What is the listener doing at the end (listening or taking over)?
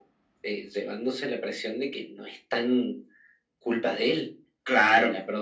listening